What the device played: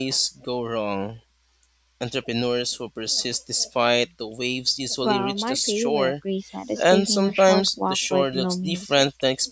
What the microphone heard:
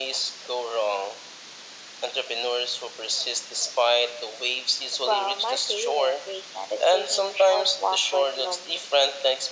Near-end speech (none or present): none